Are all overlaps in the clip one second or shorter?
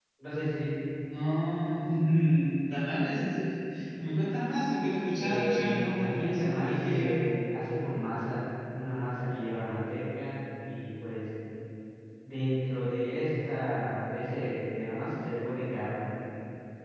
No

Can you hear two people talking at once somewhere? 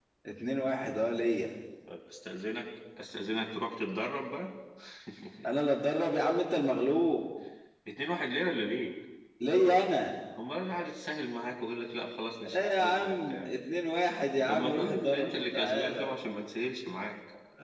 Yes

